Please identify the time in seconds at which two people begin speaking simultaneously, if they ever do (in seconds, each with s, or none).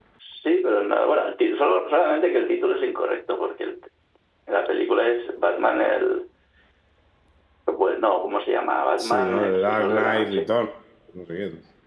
9.0 s